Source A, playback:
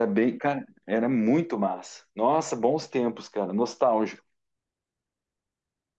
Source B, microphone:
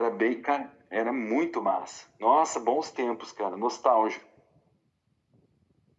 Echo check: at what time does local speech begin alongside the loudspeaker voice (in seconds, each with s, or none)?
none